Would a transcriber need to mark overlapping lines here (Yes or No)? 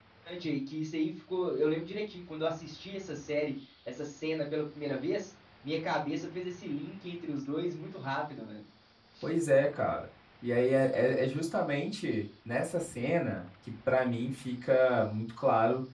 No